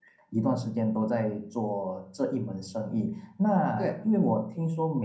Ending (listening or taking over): listening